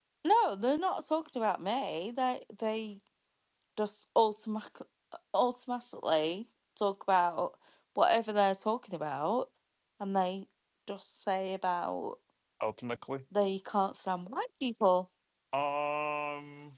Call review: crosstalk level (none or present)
none